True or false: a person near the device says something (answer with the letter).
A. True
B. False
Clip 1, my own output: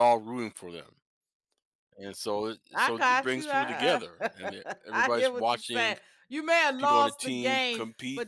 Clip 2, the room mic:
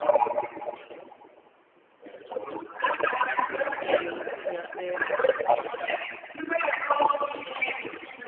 A